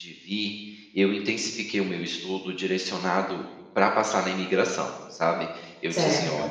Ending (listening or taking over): listening